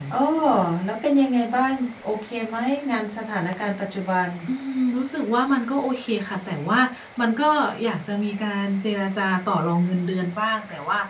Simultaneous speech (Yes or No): No